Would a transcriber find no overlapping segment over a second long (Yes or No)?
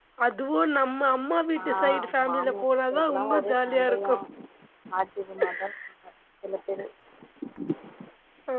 No